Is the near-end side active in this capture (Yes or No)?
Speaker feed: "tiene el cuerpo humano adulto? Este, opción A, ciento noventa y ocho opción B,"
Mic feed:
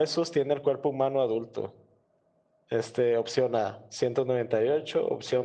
No